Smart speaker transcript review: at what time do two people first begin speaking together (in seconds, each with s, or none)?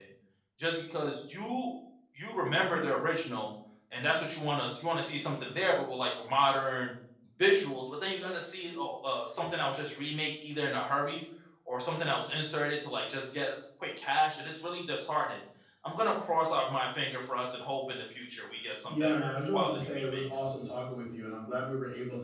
18.9 s